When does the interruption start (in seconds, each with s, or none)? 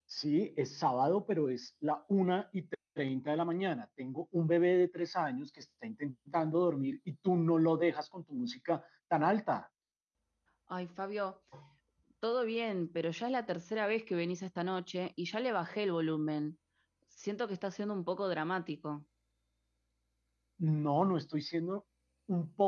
none